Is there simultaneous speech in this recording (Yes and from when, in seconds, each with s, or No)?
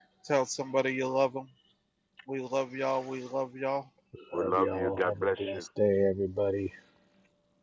Yes, from 4.3 s